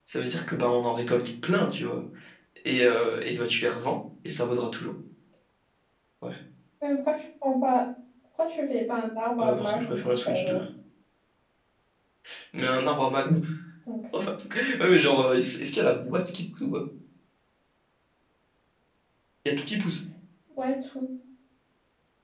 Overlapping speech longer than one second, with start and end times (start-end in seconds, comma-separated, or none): 9.4-10.6